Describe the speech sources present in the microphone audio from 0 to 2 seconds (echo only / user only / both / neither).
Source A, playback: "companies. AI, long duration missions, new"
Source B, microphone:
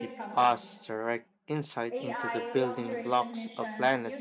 both